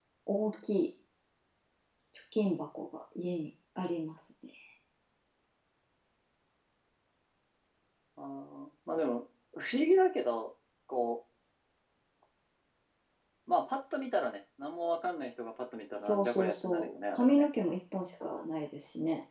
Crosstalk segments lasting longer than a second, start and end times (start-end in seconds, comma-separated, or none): 16.0-17.5